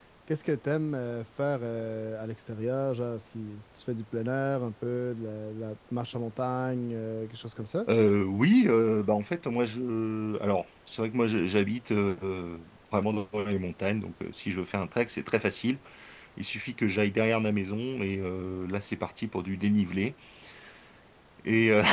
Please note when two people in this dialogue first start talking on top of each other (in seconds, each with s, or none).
none